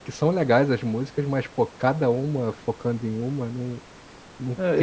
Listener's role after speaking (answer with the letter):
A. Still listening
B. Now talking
B